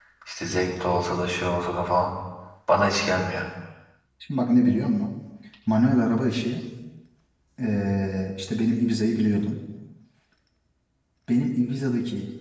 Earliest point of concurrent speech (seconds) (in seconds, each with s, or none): none